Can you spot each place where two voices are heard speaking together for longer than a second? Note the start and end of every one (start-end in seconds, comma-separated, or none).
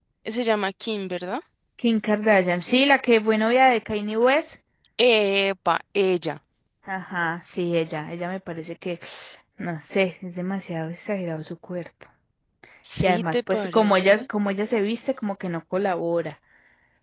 13.0-14.2